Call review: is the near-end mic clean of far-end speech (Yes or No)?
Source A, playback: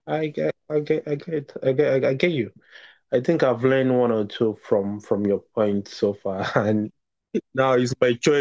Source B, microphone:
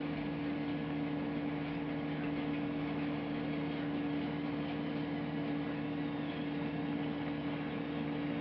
Yes